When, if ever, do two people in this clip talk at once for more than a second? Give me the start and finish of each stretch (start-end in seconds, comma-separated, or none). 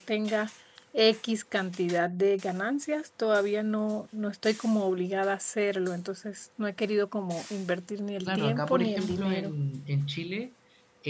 8.2-9.5